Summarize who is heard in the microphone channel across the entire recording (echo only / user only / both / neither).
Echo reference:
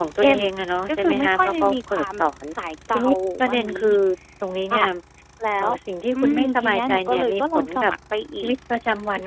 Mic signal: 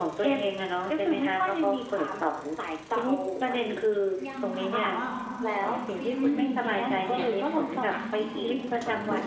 both